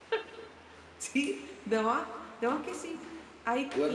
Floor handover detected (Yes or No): Yes